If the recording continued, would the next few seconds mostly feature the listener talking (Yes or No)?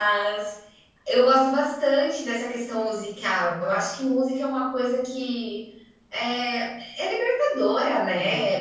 No